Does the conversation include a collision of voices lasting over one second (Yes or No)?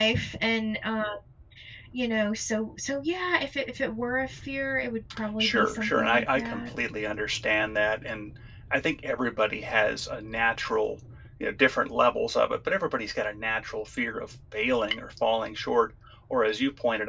Yes